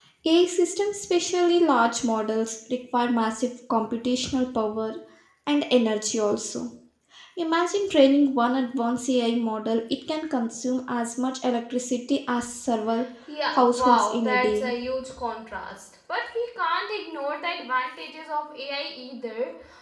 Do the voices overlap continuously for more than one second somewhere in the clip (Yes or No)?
Yes